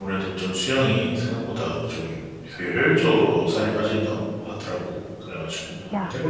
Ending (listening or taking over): taking over